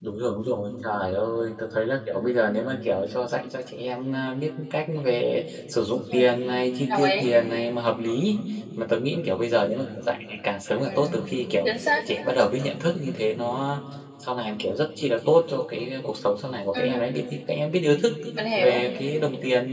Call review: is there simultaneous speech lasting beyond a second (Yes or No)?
No